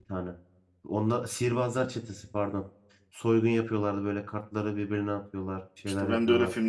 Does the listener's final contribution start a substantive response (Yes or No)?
Yes